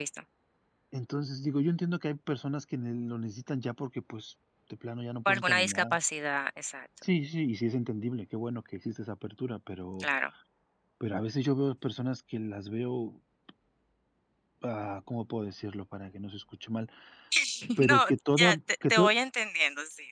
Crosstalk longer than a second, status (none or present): present